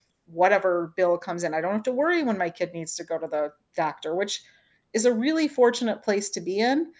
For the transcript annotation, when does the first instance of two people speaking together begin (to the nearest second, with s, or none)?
none